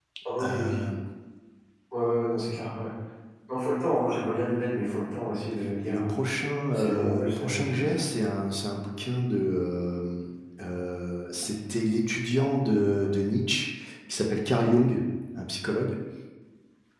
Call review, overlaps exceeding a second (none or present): present